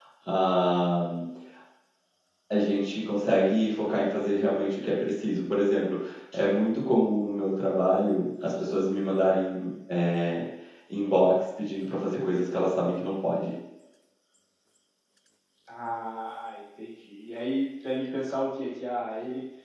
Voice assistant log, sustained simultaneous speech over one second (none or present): none